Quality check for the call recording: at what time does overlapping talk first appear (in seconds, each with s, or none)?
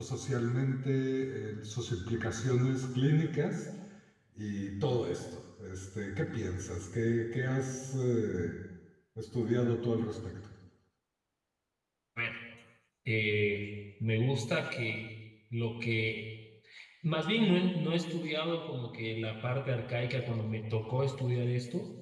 none